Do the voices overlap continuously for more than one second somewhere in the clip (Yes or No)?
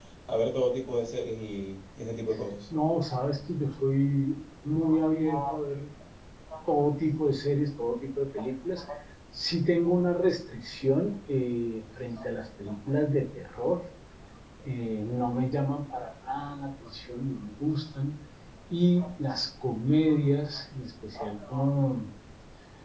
No